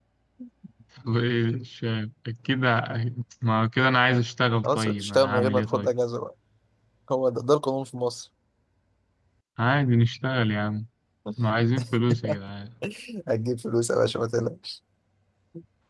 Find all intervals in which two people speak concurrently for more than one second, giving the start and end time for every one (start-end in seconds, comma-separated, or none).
4.6-5.9